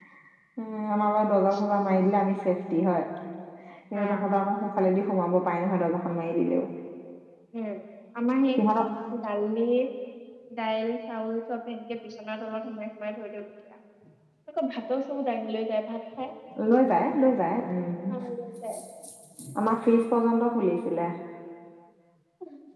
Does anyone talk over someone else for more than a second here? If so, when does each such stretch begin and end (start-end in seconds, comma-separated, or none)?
none